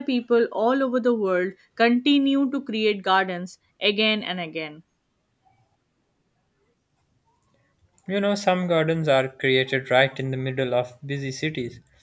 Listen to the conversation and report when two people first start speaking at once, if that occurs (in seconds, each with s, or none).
none